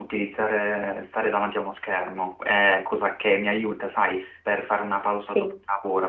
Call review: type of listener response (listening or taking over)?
listening